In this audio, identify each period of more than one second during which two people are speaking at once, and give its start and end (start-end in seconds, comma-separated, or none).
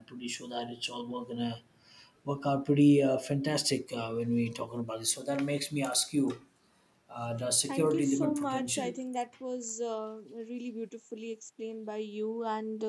7.7-8.9